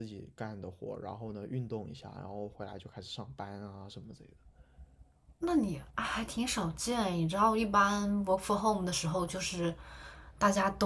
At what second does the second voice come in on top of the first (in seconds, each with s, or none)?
none